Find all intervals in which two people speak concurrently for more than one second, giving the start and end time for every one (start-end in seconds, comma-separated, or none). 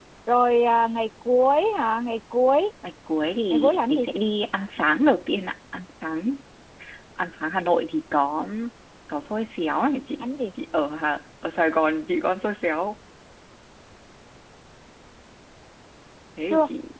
none